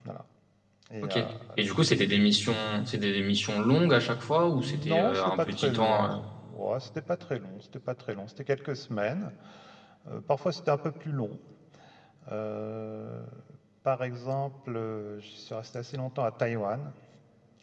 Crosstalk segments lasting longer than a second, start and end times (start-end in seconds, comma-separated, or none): 4.6-6.1